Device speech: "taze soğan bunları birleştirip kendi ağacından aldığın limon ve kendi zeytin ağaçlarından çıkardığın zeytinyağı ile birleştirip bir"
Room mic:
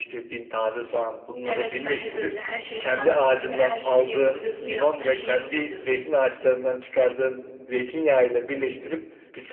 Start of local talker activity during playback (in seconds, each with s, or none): 1.4 s